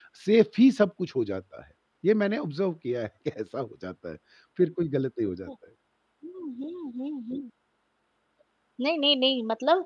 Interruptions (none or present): none